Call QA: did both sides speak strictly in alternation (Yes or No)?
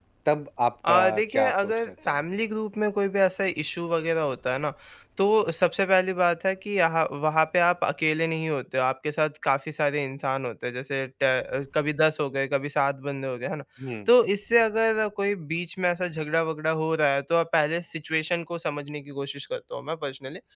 No